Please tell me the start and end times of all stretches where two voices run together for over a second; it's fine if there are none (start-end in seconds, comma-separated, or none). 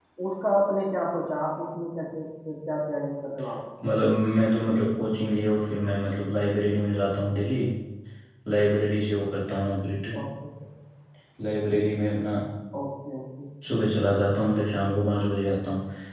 none